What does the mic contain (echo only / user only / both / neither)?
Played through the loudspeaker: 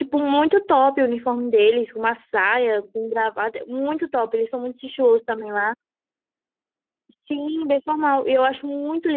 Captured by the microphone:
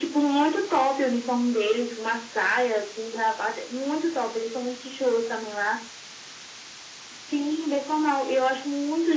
echo only